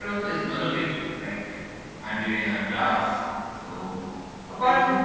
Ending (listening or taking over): listening